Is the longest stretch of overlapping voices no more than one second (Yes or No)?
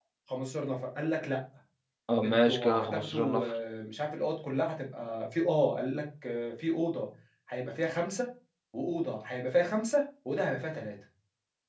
No